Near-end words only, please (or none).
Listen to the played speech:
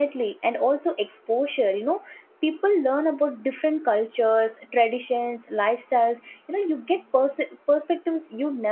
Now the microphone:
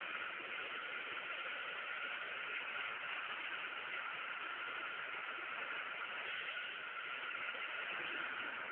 none